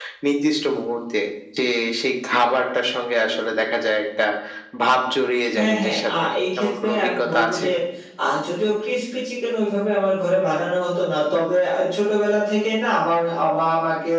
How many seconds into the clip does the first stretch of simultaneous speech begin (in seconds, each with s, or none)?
5.6 s